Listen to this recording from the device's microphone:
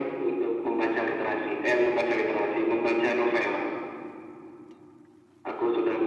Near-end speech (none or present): none